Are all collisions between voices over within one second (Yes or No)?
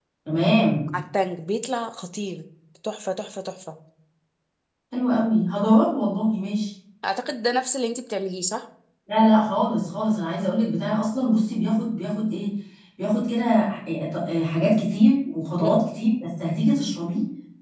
Yes